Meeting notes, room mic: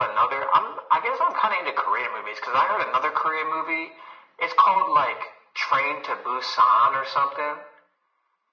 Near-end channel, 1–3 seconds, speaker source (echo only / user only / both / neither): echo only